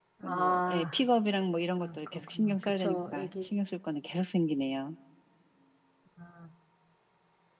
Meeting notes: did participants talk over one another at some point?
Yes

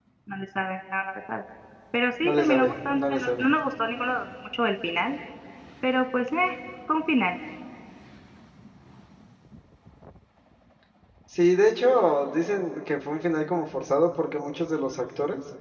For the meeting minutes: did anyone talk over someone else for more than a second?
Yes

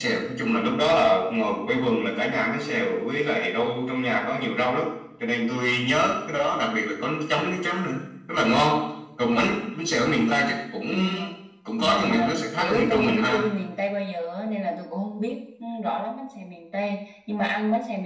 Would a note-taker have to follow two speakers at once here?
Yes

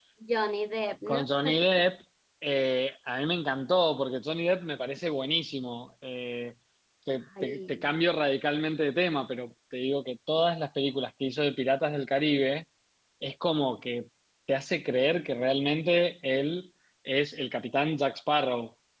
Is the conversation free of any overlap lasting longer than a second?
Yes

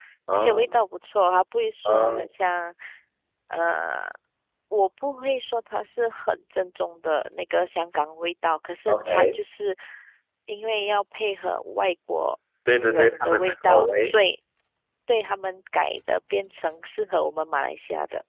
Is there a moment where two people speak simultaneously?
Yes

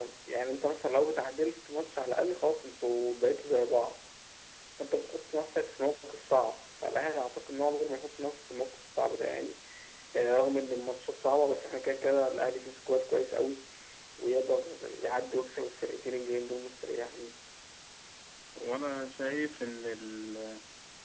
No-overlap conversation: Yes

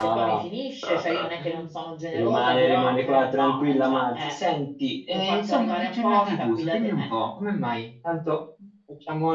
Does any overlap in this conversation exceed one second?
Yes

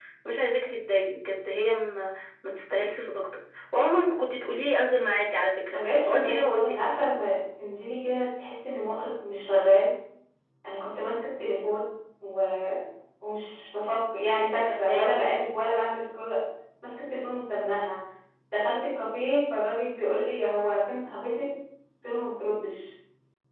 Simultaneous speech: Yes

